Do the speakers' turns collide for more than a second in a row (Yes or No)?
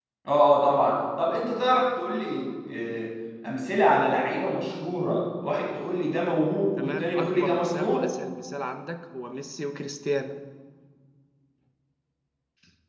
Yes